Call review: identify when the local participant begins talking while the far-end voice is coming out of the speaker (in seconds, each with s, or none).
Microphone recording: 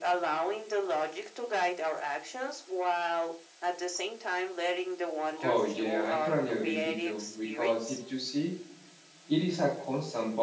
5.4 s